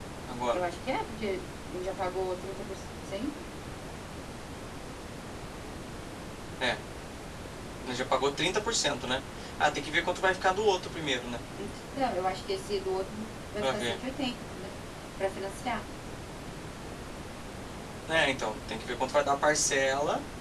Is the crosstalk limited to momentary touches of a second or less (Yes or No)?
Yes